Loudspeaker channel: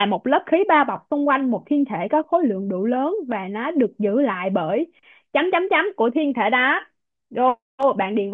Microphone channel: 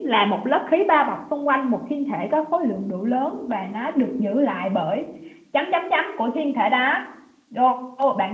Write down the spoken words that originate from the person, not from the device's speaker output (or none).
none